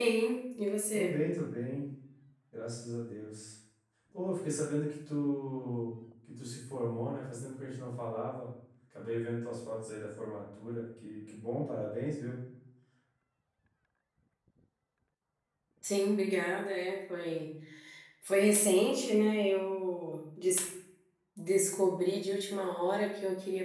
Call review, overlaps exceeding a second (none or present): none